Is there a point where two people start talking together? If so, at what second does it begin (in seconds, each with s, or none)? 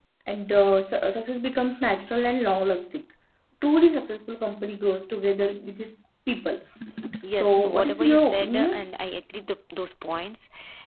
7.4 s